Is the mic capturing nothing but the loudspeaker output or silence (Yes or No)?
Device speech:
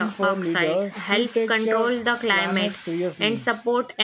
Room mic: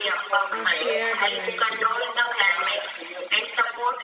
No